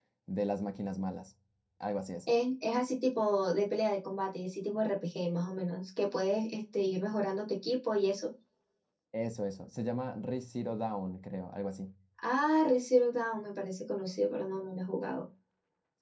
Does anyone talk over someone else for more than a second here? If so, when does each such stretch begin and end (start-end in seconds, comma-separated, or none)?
none